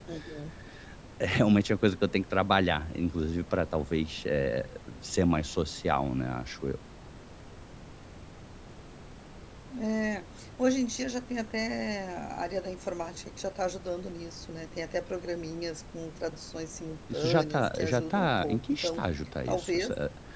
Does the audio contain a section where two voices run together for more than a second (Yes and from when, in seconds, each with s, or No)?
Yes, from 17.1 s